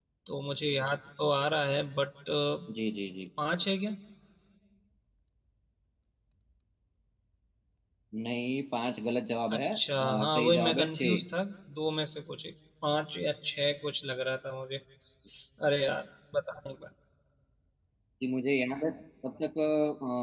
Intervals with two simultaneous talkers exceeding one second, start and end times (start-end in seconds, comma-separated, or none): 9.5-11.2